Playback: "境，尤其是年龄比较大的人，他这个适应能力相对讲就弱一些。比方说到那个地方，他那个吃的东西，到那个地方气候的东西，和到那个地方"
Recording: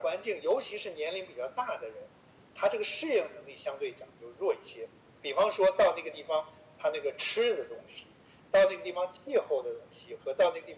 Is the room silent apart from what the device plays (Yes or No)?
Yes